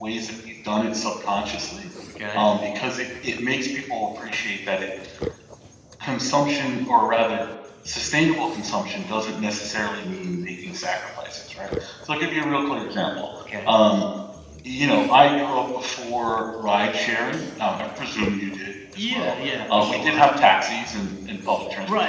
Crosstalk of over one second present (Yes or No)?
Yes